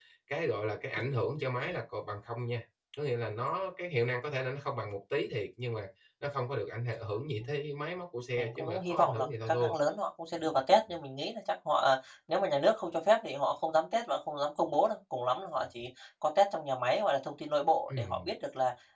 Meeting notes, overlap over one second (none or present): present